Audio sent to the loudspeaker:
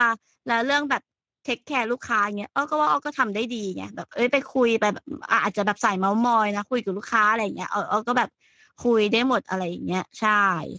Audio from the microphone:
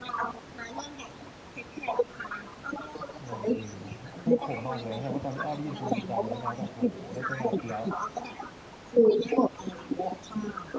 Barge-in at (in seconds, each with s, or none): 3.2 s